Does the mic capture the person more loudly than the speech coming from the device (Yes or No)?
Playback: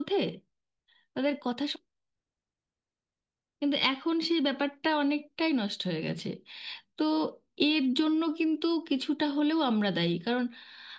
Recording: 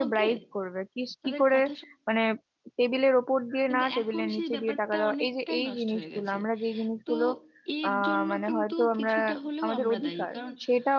Yes